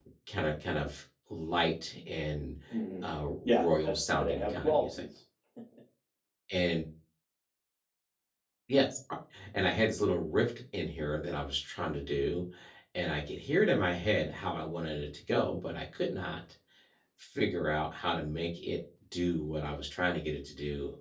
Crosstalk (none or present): present